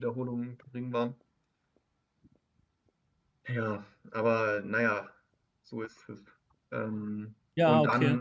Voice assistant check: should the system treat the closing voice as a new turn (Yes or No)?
No